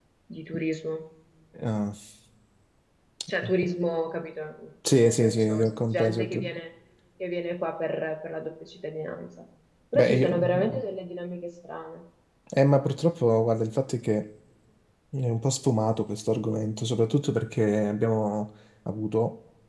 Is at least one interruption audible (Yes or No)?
Yes